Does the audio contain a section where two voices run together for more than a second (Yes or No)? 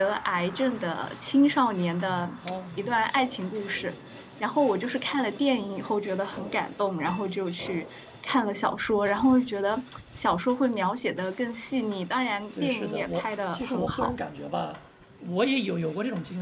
Yes